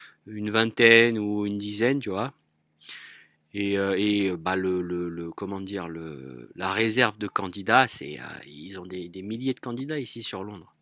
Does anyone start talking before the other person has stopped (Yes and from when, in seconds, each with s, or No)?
No